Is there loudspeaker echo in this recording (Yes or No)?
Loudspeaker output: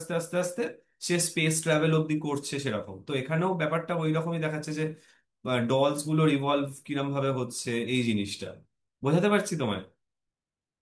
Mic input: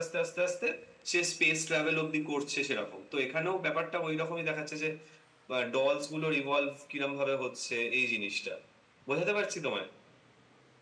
Yes